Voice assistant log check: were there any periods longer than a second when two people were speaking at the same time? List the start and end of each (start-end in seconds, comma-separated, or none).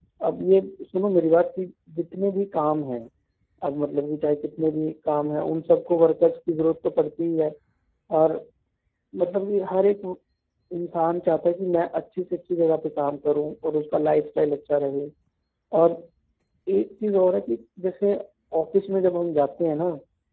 none